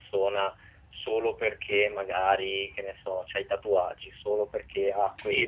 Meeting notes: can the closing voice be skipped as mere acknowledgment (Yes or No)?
No